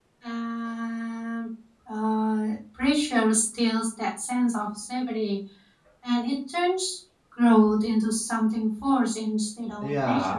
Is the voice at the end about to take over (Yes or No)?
Yes